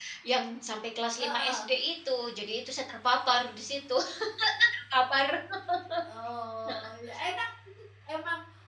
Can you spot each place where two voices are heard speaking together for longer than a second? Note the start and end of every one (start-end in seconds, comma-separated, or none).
none